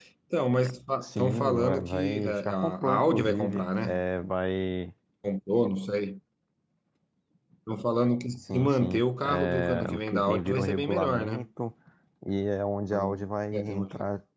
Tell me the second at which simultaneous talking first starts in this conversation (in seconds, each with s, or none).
1.0 s